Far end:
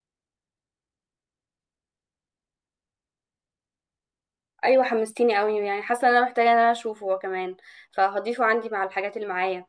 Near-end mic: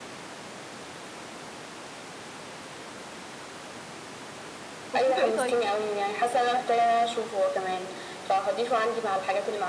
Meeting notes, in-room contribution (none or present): present